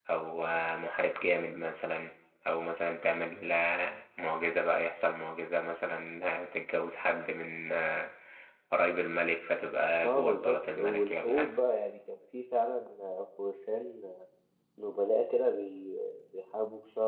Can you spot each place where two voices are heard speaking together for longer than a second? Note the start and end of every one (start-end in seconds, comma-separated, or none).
10.0-11.6